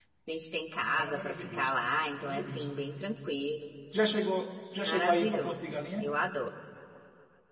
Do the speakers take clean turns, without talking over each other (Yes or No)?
No